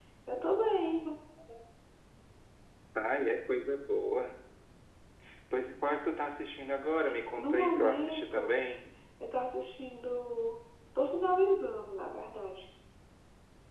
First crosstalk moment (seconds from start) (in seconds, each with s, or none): 7.4 s